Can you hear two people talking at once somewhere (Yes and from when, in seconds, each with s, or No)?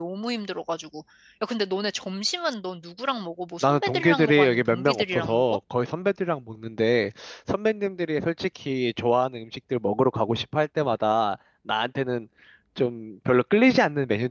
Yes, from 3.6 s